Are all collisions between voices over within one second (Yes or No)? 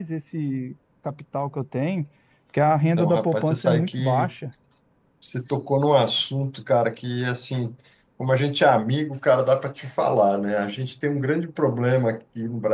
No